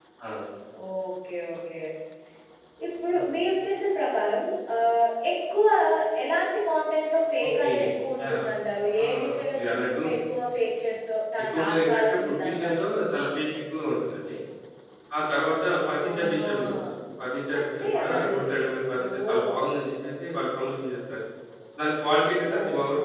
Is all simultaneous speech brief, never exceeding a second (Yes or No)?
No